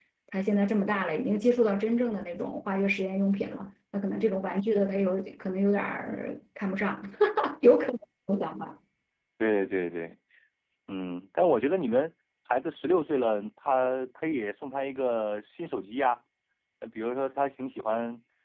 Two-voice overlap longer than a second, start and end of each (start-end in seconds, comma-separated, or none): none